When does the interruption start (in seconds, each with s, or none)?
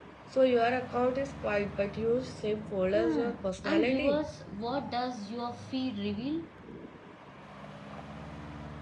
2.9 s